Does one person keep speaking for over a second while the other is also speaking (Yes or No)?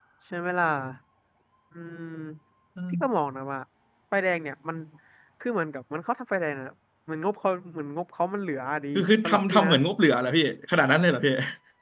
No